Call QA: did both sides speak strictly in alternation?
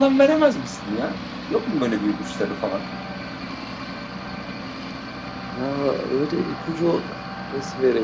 Yes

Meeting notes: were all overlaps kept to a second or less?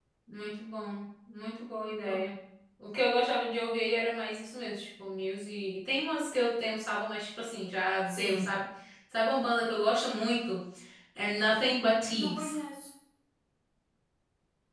Yes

